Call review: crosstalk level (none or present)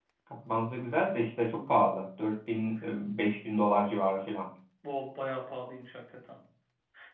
none